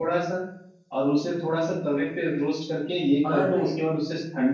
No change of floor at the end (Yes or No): Yes